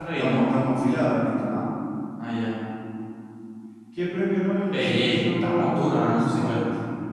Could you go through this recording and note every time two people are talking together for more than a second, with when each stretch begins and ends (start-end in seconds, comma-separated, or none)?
4.7-6.6